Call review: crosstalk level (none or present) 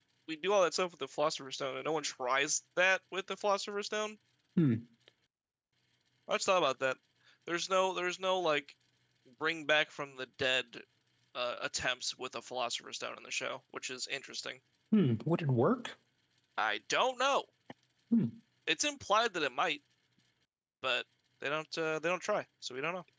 none